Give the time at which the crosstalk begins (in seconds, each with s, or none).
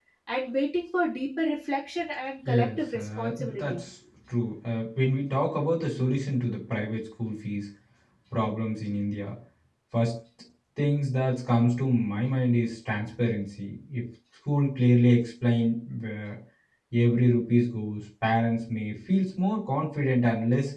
2.5 s